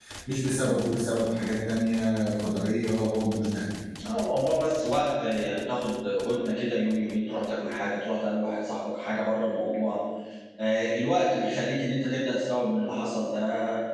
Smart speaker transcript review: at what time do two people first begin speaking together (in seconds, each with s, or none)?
none